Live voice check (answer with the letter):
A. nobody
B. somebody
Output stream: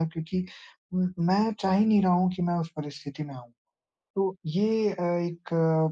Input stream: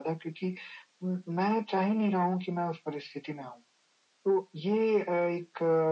A